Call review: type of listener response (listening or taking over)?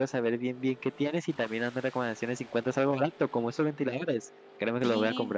taking over